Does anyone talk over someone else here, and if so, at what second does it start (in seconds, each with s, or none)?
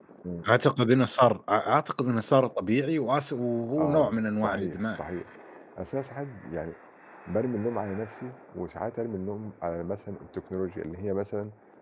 3.8 s